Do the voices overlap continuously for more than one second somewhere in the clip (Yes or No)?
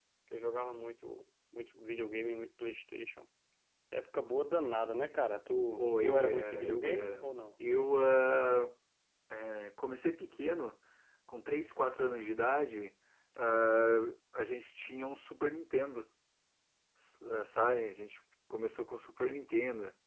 Yes